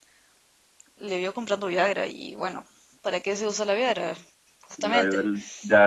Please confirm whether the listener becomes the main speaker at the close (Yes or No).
Yes